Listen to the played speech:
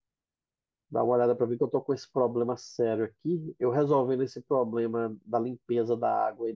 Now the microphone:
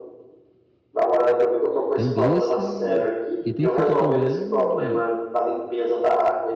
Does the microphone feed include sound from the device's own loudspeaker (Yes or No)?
Yes